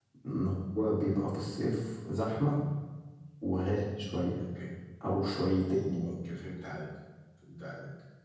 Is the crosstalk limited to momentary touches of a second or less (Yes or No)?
Yes